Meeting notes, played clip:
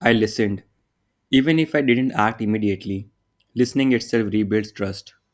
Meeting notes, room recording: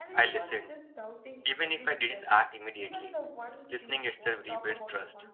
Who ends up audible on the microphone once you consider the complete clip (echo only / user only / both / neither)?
both